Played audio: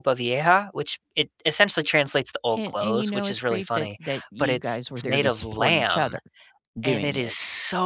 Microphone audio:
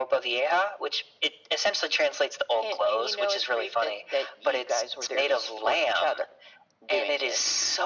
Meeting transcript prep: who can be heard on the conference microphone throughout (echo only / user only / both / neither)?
echo only